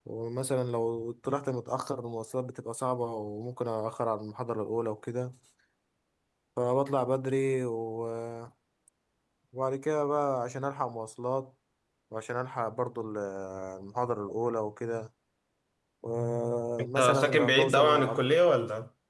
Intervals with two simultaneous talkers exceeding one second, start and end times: 17.0-18.3

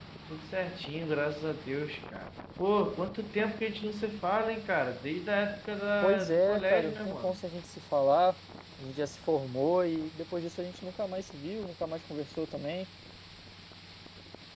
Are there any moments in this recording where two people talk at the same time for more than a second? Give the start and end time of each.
6.0-7.4

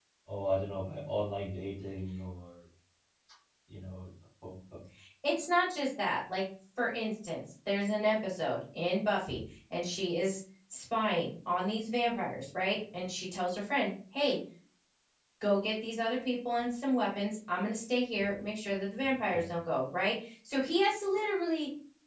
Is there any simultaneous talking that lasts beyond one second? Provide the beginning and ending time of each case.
none

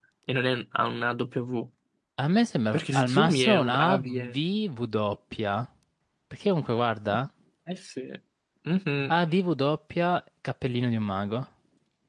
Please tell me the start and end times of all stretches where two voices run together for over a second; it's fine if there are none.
2.7-4.3

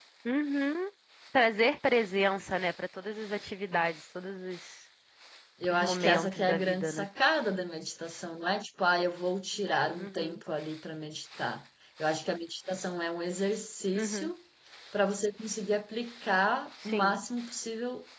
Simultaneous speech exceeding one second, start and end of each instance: 5.7-7.1

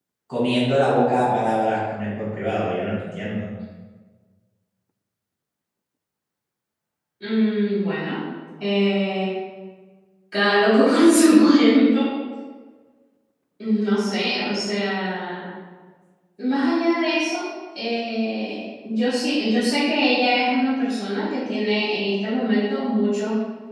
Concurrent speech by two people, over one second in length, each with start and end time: none

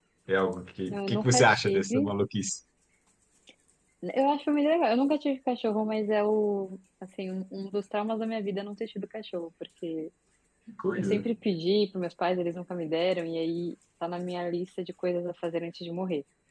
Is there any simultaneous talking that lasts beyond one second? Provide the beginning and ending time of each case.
0.9-2.1

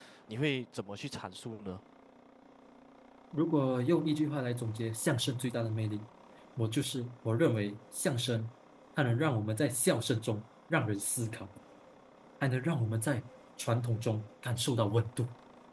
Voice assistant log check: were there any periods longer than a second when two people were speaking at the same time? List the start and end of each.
none

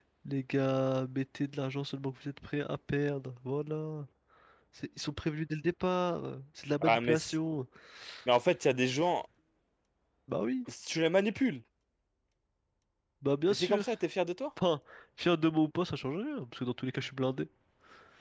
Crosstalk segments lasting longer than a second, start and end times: none

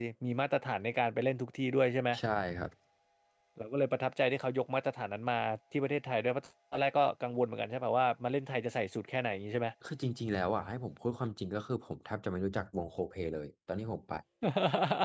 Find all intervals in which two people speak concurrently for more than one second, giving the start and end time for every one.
none

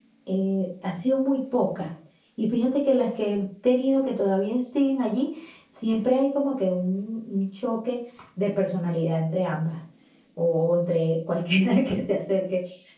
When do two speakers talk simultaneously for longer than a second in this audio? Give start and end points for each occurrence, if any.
none

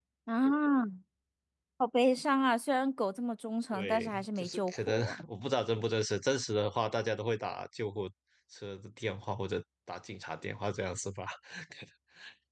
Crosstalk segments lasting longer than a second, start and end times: 3.7-5.2

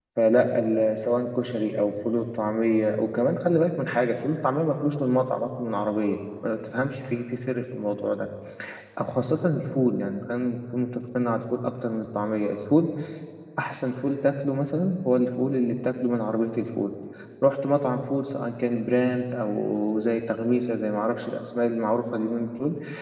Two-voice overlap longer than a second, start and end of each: none

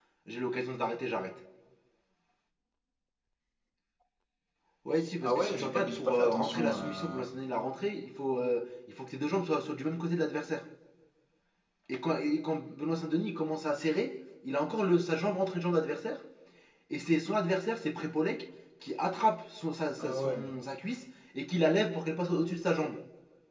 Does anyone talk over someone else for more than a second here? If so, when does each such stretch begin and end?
5.2-7.2

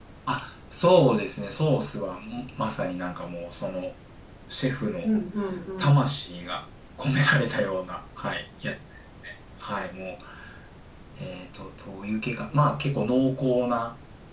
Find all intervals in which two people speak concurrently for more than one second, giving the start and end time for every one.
none

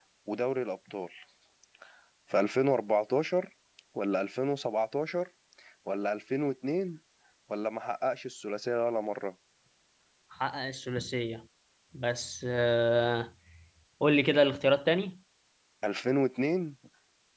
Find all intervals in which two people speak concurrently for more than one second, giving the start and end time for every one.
none

